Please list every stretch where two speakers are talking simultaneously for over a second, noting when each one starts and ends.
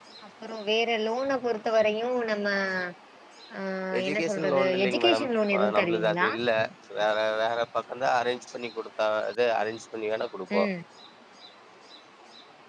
4.0-6.3

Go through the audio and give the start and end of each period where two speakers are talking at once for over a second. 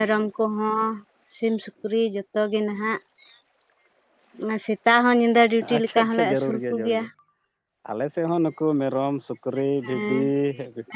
5.8-7.0

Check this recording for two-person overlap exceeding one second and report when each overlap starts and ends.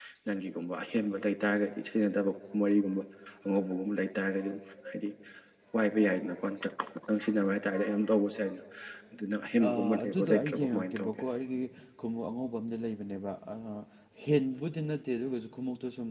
9.7-11.1

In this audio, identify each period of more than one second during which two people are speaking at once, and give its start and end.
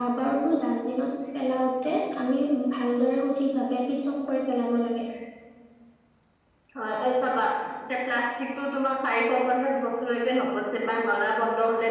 none

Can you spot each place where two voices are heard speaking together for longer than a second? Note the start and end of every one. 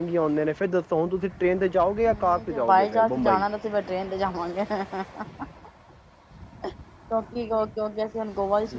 2.0-3.4

